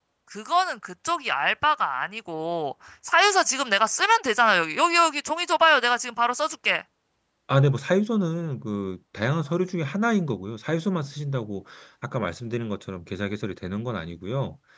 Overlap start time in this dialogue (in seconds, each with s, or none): none